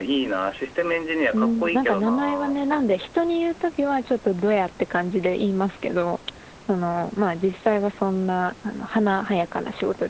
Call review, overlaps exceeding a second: present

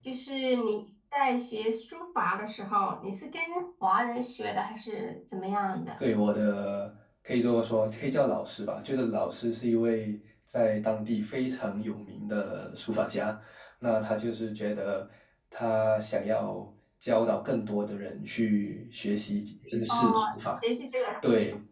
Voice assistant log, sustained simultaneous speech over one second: none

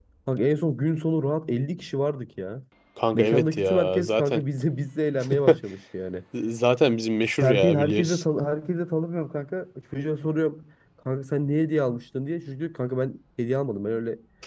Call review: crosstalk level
present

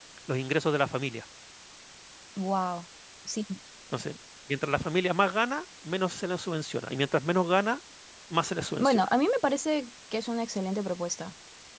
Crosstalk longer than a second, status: none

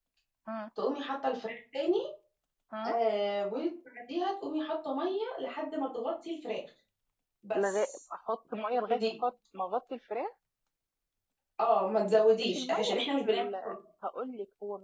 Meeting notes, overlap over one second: present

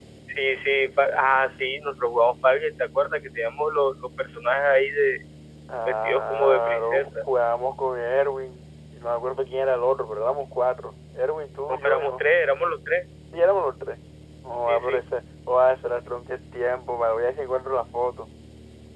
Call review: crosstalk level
present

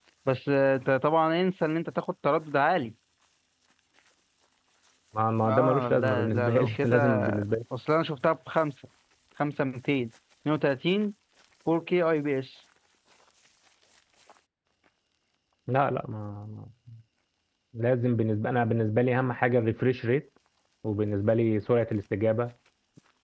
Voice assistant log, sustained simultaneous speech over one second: present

